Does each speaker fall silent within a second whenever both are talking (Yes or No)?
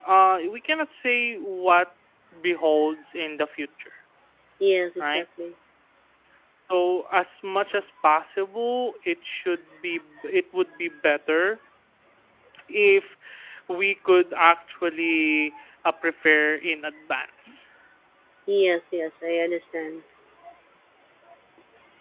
Yes